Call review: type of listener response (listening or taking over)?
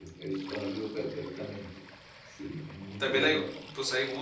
taking over